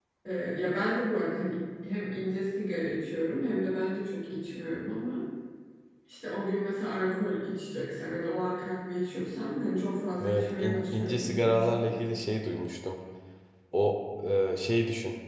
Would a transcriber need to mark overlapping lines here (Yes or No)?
Yes